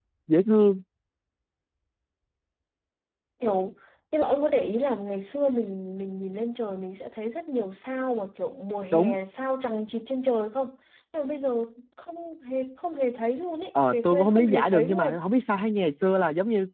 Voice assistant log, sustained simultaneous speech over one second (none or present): present